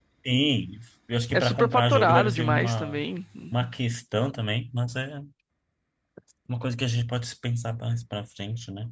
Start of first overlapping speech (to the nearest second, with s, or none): 1 s